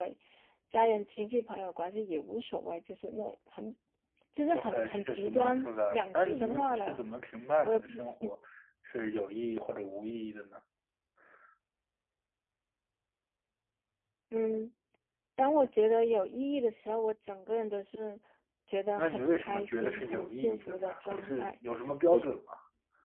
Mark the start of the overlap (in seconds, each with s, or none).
4.5 s